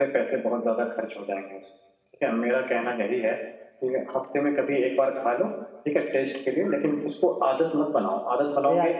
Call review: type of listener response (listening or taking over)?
taking over